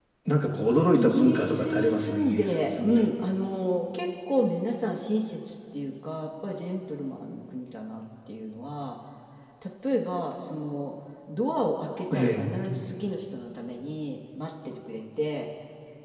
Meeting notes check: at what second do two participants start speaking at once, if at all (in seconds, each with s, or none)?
0.9 s